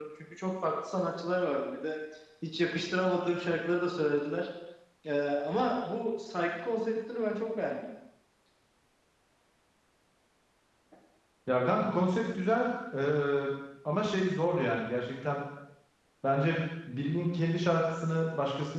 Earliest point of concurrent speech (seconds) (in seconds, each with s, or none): none